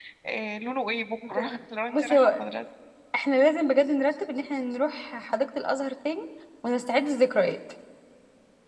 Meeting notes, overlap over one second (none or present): none